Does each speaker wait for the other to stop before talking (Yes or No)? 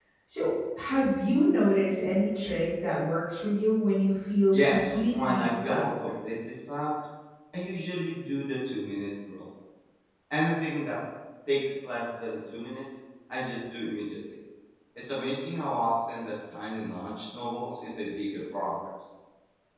No